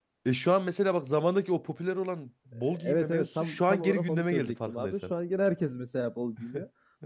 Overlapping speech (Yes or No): Yes